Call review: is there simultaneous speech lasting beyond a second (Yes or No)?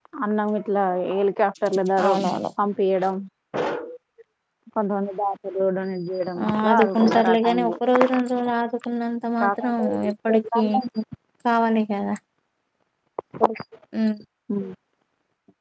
Yes